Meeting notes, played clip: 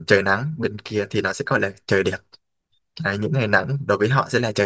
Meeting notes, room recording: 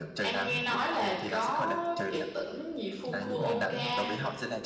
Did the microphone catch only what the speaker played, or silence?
No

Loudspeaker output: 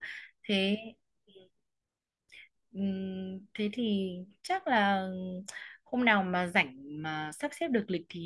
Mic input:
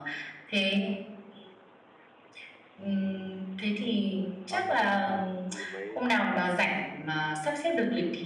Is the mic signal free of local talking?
No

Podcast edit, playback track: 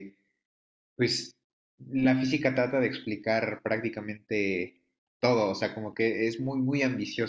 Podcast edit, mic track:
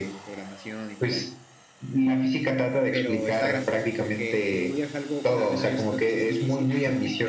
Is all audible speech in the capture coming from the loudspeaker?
No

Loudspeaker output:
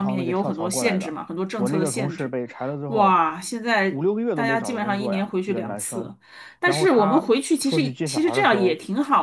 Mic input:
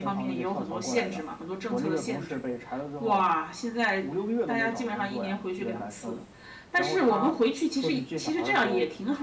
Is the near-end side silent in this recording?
Yes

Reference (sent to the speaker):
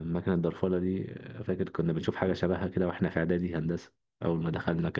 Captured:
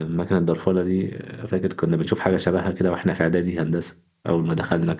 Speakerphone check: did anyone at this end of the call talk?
No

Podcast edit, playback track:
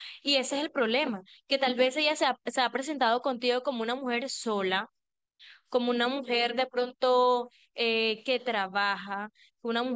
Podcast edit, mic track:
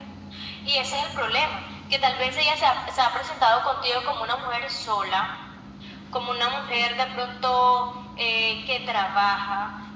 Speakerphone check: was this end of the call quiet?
Yes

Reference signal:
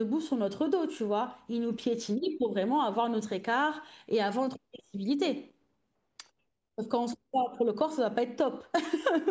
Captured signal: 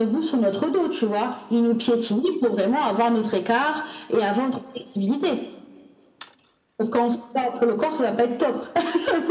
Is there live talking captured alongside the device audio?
No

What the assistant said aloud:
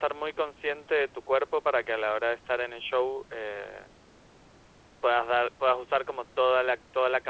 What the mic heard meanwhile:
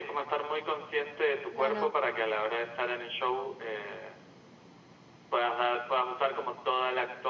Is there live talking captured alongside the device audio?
Yes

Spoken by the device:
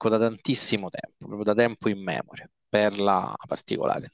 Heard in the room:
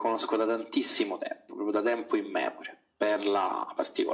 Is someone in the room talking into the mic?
No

